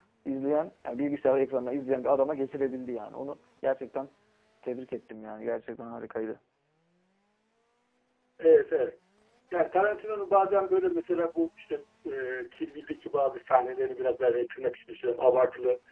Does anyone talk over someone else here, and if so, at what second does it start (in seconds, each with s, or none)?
none